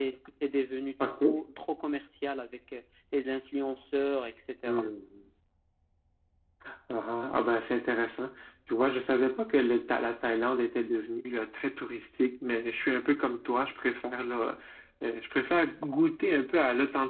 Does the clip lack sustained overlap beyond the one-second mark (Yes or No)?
Yes